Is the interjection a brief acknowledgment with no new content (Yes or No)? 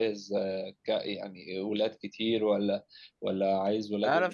No